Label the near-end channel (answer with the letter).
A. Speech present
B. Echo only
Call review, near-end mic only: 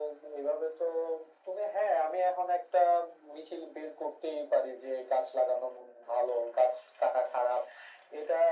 B